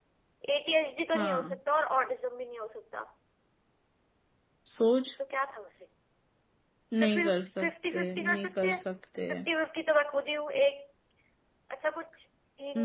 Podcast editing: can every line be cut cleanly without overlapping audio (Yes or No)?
No